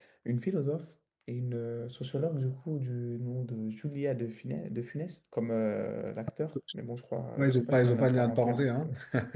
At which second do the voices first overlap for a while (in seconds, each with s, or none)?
7.4 s